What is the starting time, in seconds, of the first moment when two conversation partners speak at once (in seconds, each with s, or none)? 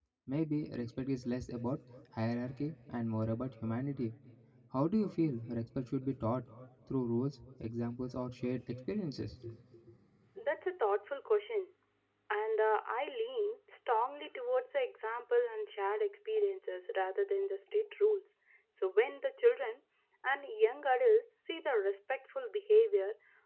none